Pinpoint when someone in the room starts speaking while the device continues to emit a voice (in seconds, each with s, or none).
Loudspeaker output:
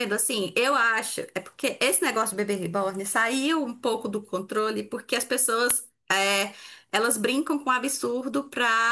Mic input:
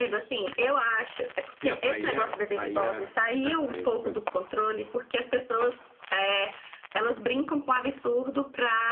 1.6 s